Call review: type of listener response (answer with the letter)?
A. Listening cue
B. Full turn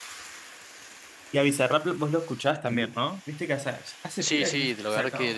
B